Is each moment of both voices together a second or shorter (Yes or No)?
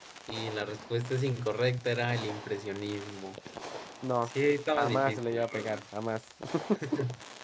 No